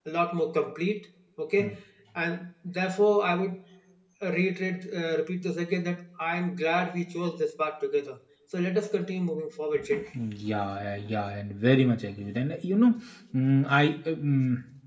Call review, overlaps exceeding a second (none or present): none